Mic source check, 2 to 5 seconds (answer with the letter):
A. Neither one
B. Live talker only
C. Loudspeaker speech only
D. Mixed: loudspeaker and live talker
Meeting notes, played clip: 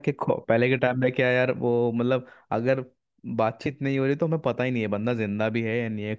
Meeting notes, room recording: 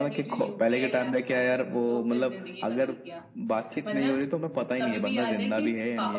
D